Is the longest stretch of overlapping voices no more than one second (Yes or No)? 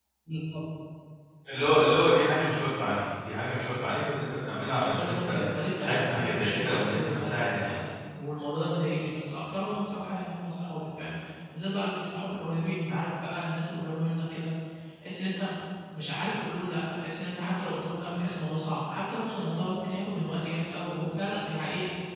No